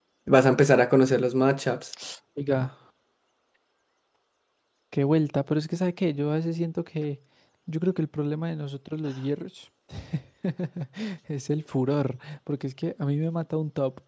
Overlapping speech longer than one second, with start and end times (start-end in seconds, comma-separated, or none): none